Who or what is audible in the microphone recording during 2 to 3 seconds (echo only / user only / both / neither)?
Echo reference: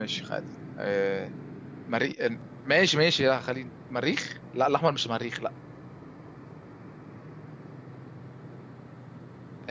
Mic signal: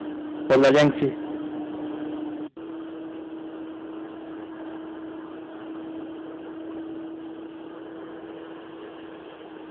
neither